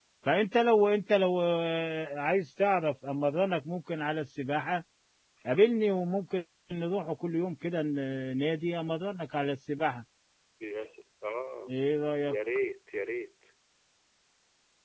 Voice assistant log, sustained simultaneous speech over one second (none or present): none